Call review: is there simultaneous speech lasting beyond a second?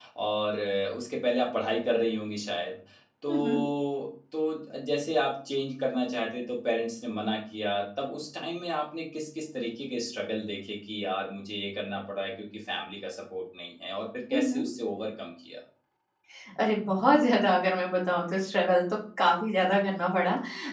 No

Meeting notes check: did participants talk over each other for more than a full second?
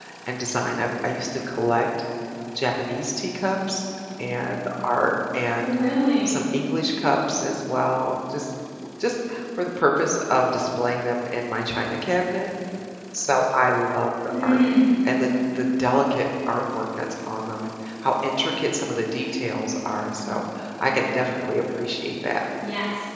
No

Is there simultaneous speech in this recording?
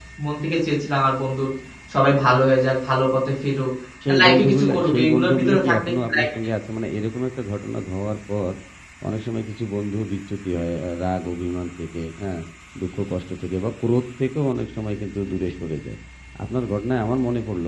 Yes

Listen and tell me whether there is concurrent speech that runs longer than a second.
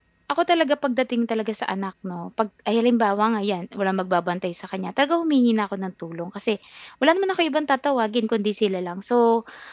No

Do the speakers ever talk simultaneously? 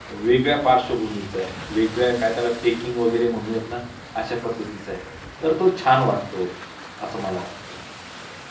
No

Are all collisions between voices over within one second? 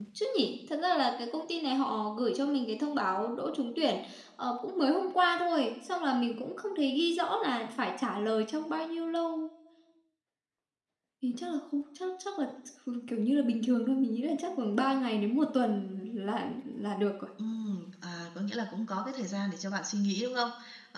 Yes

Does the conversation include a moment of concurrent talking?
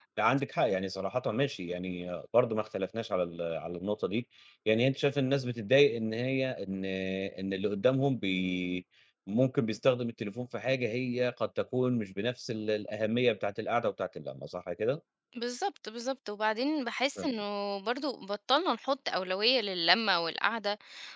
No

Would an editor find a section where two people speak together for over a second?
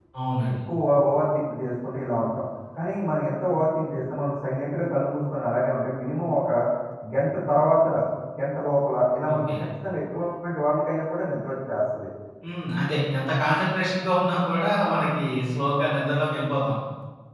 No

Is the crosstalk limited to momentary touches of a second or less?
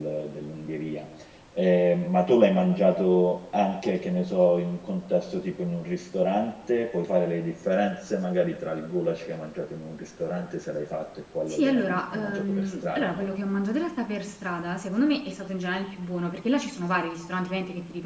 No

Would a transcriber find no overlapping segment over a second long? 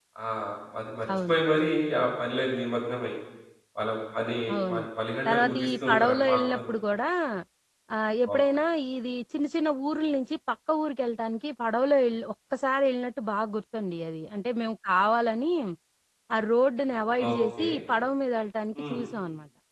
No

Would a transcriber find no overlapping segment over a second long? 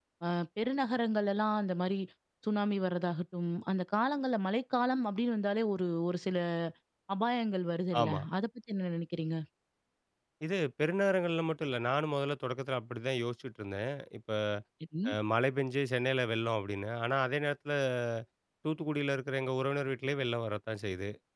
Yes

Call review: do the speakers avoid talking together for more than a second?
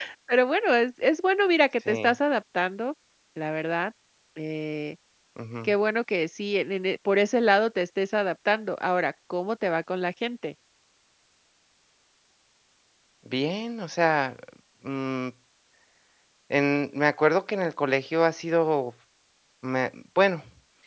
Yes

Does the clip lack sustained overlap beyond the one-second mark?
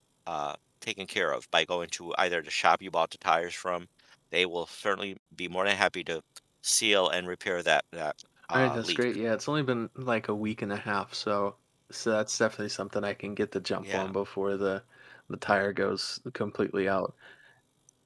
Yes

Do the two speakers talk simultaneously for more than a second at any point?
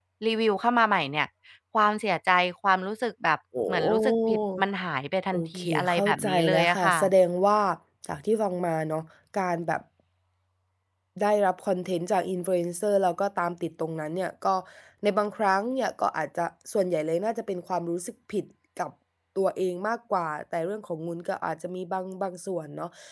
Yes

